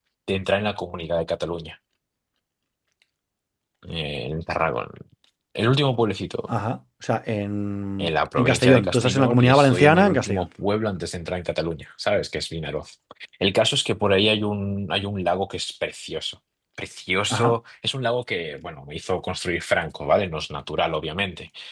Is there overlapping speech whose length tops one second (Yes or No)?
Yes